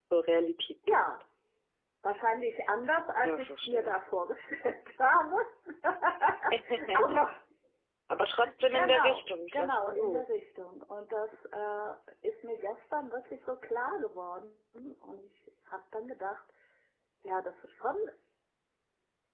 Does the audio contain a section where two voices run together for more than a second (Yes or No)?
Yes